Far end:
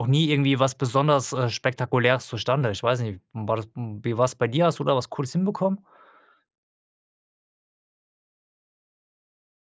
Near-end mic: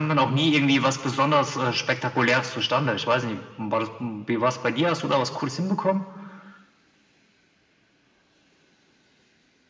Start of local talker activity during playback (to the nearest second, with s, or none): none